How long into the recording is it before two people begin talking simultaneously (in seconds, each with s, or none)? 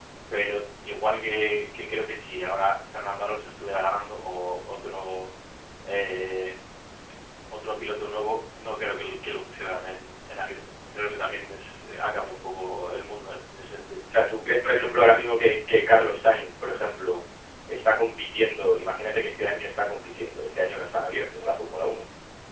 none